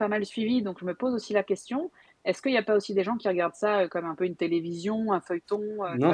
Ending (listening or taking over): taking over